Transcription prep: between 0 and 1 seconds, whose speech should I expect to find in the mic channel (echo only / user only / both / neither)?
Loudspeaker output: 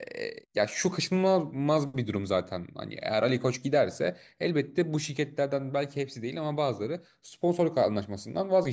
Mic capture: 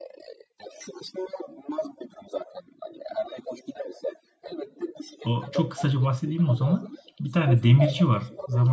echo only